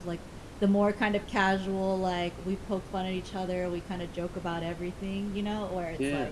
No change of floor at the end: Yes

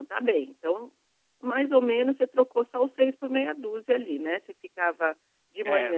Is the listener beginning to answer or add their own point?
No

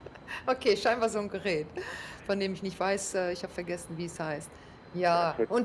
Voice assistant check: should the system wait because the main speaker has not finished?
Yes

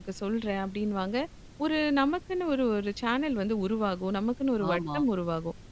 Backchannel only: Yes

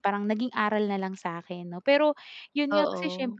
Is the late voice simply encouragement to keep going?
Yes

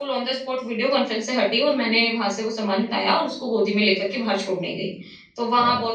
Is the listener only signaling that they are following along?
Yes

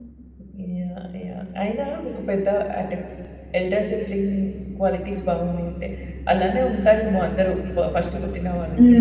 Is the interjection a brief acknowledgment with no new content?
No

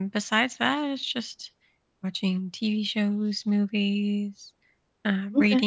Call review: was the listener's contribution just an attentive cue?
Yes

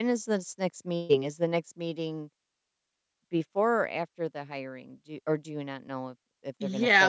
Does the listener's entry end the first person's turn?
Yes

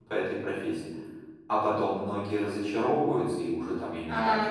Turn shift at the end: Yes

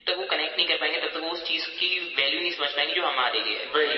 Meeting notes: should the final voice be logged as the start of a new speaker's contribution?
Yes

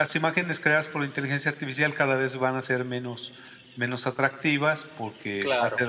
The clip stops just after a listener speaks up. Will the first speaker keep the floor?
Yes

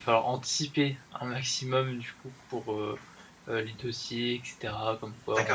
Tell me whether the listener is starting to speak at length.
Yes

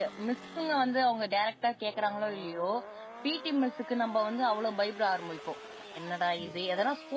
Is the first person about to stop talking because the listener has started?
No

